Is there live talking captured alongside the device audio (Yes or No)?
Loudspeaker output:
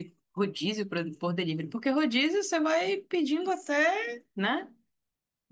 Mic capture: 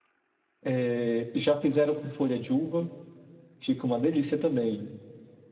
Yes